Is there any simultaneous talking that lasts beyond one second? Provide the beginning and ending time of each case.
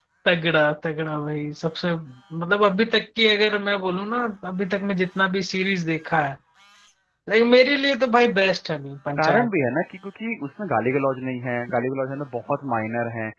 none

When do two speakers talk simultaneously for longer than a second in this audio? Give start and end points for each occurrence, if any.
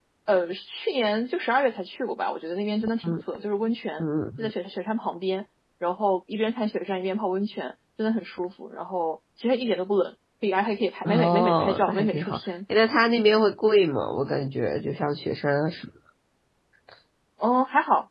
11.0-12.4

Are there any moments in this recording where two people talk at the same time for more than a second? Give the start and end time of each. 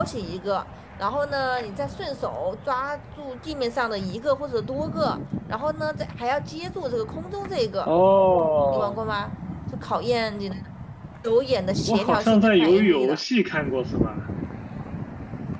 11.9-13.2

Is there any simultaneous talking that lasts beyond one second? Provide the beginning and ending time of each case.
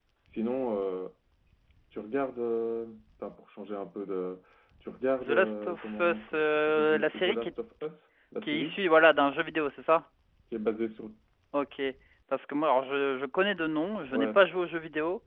5.2-7.5

